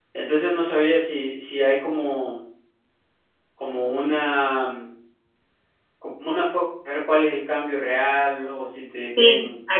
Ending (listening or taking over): taking over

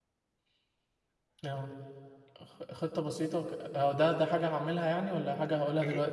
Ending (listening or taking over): taking over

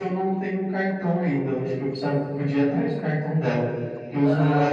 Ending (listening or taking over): listening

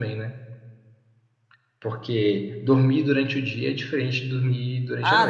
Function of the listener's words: taking over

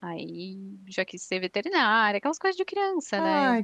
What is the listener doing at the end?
taking over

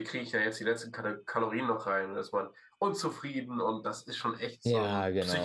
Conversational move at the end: taking over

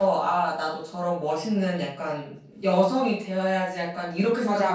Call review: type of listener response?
taking over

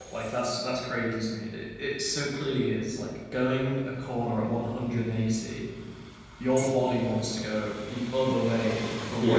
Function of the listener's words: listening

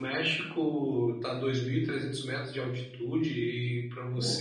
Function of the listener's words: listening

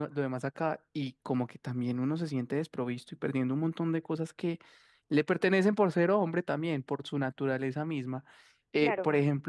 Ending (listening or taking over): listening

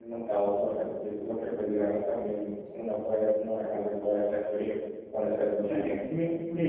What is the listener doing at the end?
taking over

